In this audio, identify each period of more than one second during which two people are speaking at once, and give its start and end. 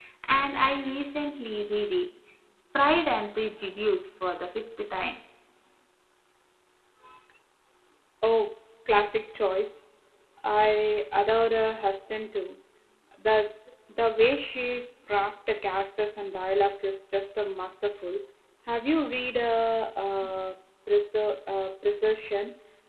none

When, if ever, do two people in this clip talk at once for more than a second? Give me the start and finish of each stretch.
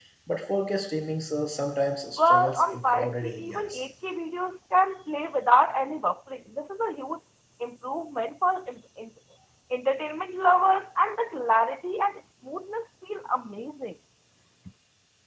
2.2-3.8

